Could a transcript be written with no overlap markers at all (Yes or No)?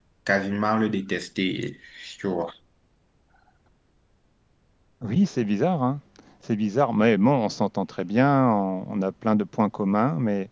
Yes